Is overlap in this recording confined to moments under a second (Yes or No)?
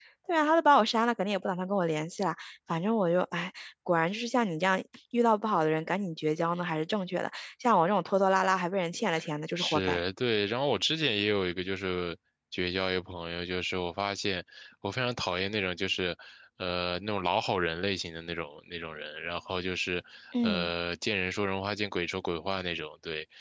Yes